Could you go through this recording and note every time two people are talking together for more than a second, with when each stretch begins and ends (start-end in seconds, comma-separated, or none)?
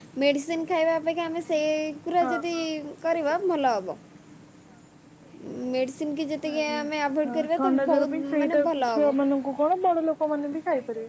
7.3-9.1